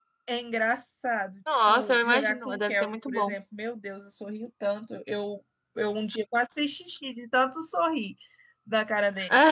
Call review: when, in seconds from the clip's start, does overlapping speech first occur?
1.5 s

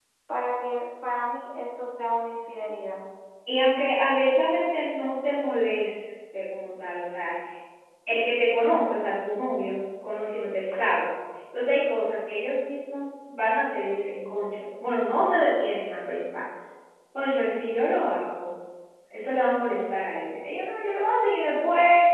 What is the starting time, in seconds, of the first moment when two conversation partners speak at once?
none

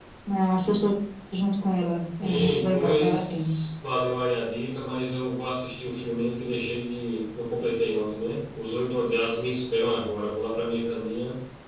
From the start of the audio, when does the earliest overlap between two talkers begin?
2.2 s

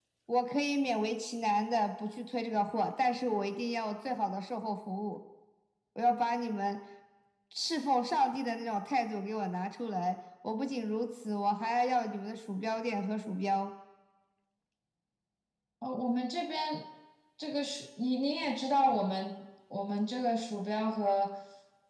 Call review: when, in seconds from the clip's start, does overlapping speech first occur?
none

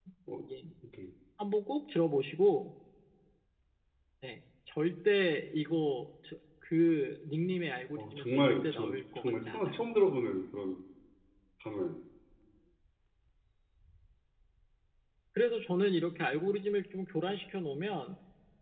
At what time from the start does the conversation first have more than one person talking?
8.0 s

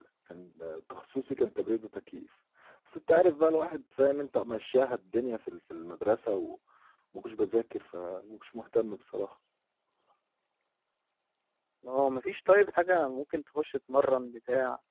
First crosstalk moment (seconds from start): none

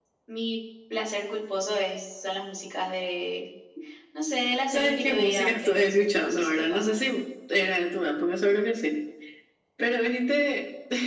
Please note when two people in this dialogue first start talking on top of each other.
4.7 s

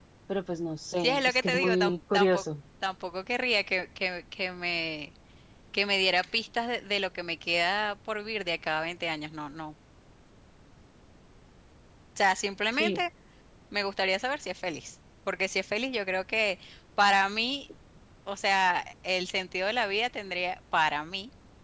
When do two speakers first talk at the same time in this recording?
1.0 s

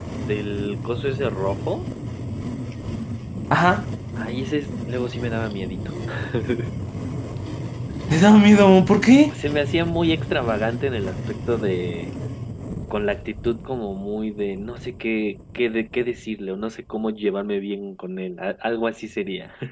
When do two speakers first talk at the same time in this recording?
none

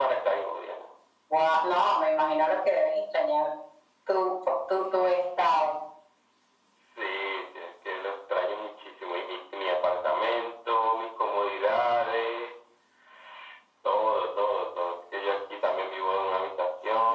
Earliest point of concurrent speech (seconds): none

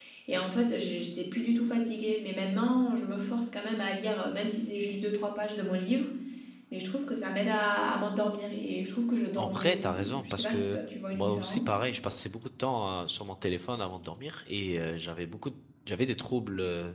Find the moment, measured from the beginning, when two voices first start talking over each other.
9.4 s

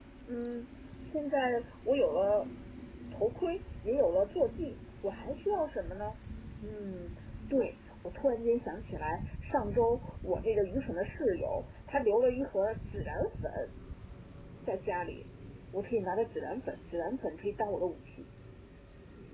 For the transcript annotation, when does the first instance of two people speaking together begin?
none

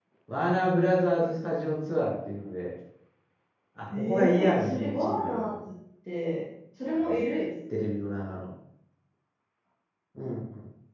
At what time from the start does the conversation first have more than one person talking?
3.9 s

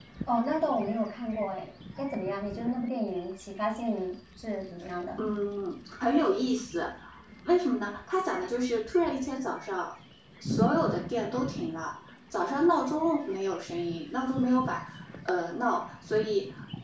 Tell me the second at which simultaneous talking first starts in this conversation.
none

